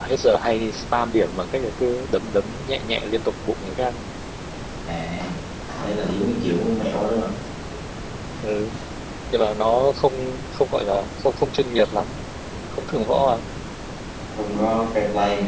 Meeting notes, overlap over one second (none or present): none